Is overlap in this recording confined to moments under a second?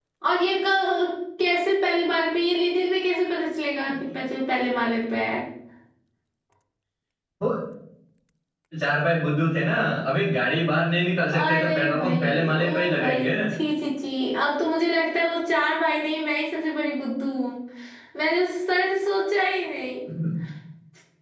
No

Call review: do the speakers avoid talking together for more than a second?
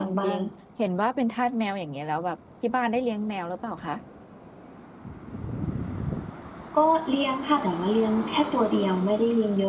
Yes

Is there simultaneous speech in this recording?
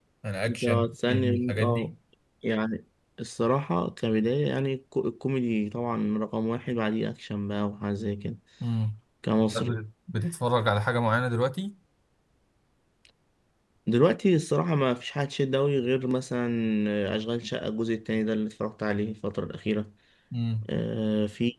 Yes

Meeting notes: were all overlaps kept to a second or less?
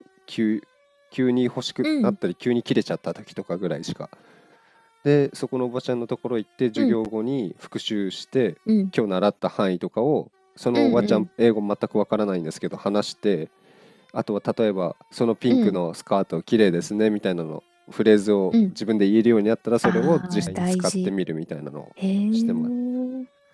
No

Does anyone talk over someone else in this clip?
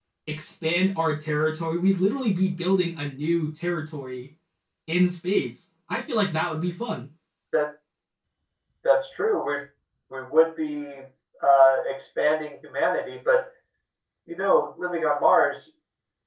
No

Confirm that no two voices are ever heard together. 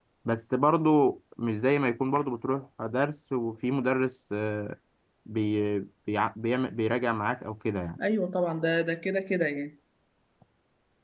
Yes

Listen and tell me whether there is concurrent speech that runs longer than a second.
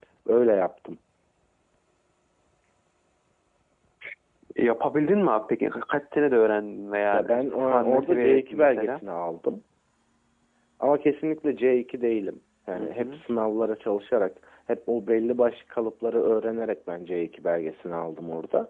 Yes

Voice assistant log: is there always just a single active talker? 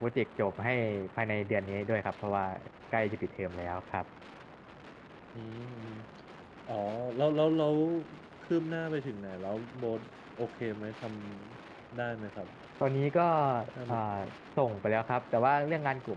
Yes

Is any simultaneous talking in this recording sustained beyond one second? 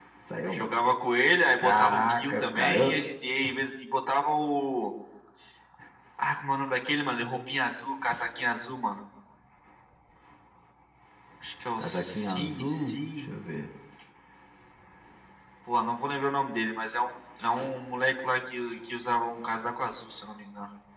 Yes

